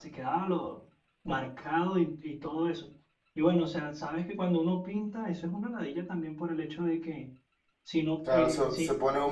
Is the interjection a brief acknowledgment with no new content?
No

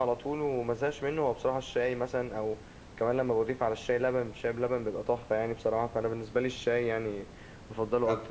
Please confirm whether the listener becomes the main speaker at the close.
Yes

